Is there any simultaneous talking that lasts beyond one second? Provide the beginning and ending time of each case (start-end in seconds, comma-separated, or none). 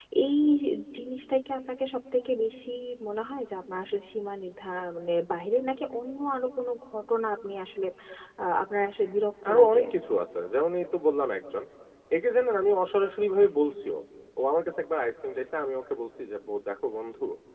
none